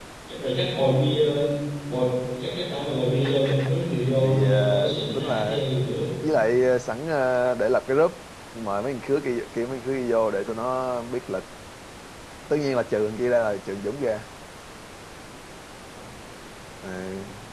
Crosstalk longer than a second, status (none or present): present